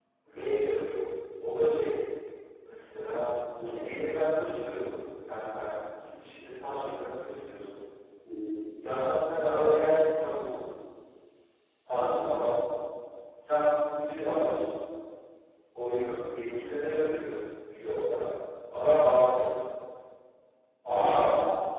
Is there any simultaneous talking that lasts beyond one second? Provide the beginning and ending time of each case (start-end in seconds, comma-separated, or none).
none